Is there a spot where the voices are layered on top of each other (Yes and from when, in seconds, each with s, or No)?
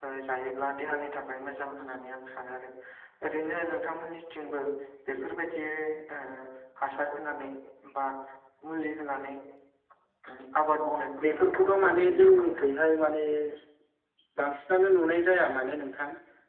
Yes, from 11.2 s